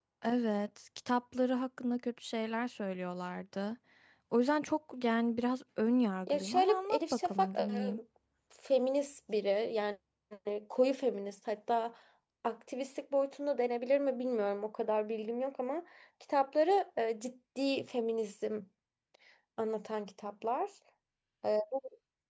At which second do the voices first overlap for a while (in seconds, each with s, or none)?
6.3 s